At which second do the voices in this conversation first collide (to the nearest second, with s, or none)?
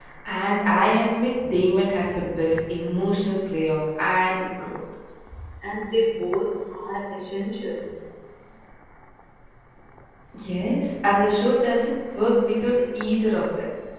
none